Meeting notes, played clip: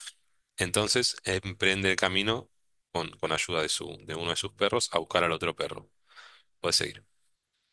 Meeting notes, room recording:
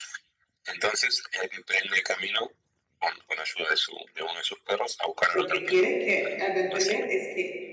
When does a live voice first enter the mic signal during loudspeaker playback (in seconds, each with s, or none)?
5.3 s